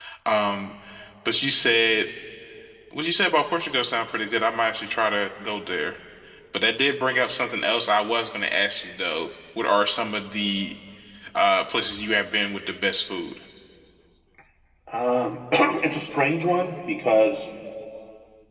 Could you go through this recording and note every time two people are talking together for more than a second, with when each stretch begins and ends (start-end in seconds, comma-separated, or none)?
none